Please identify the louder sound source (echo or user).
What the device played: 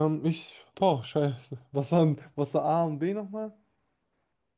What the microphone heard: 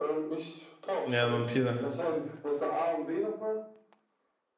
user